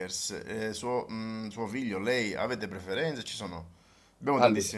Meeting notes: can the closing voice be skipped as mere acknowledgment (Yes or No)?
Yes